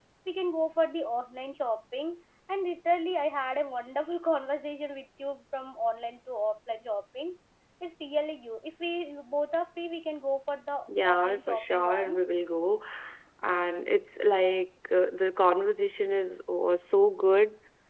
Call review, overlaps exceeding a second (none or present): present